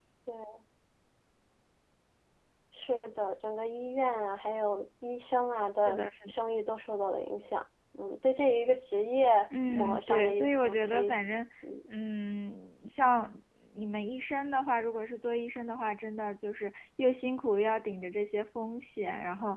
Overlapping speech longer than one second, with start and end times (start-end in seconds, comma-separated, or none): 9.7-11.2